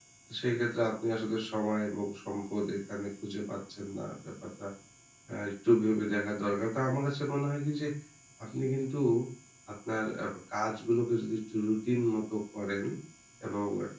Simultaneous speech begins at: none

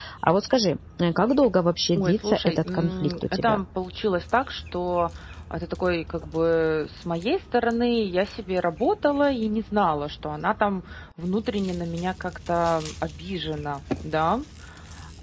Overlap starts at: 1.9 s

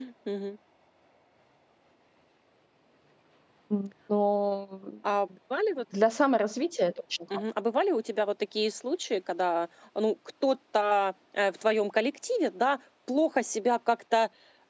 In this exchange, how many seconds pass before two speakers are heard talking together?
none

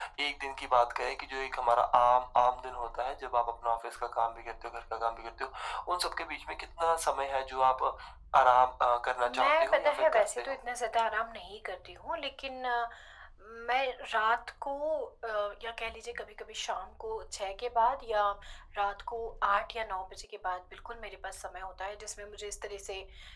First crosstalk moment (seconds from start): 9.3 s

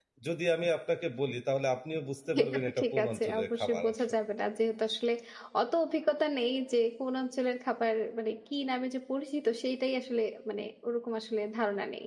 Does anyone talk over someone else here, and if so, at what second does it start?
2.2 s

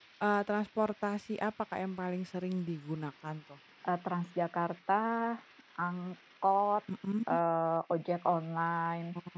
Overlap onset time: none

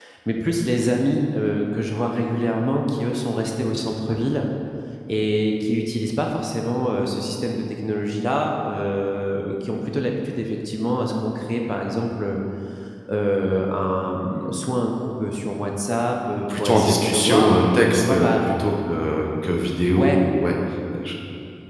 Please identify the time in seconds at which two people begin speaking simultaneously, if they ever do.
16.5 s

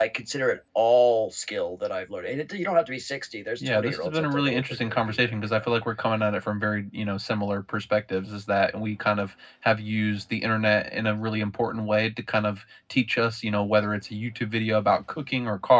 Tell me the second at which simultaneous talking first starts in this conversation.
3.6 s

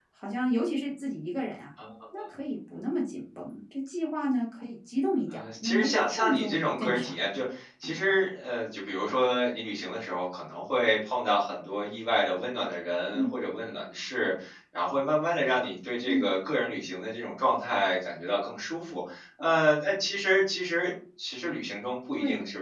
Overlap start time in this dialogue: 5.3 s

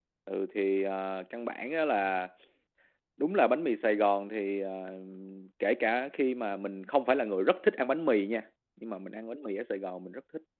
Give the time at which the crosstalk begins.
none

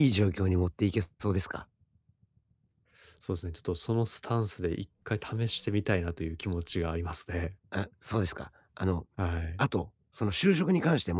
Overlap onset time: none

